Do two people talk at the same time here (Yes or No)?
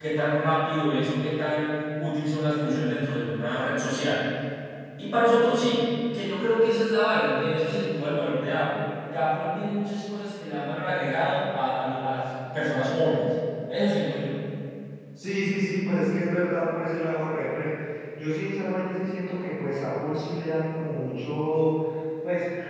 No